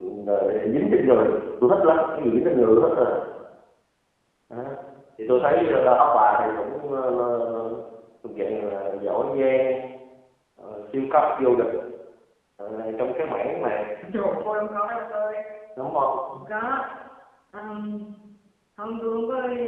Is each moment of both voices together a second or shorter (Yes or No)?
Yes